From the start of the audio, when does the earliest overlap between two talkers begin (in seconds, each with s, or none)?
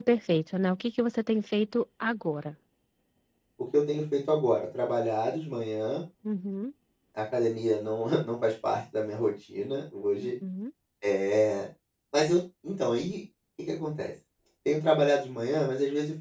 none